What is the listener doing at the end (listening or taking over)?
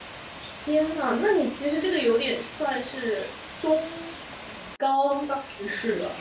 taking over